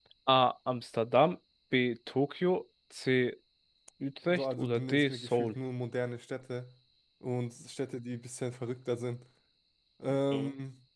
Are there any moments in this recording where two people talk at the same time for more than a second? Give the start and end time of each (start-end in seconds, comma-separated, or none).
4.3-5.6